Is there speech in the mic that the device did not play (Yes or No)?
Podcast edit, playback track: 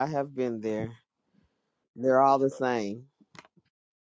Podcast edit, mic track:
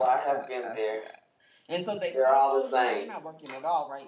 Yes